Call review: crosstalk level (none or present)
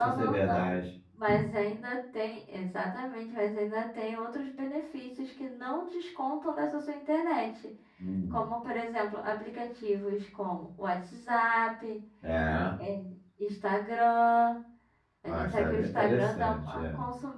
present